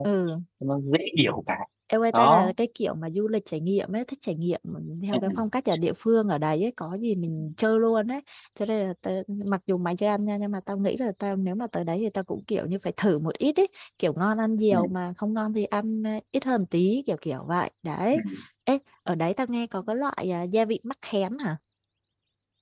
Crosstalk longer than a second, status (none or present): none